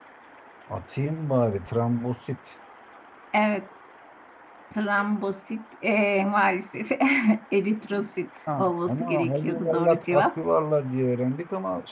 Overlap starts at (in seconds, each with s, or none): 8.5 s